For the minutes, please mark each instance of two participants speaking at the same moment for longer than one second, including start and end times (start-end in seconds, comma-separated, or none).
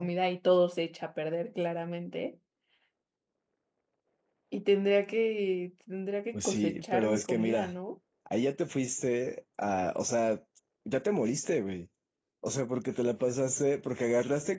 6.3-7.7